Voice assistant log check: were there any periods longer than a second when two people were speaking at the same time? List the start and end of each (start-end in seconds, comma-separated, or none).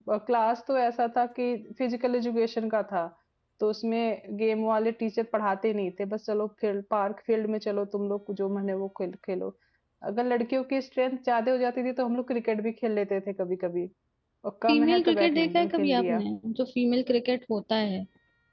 14.7-16.2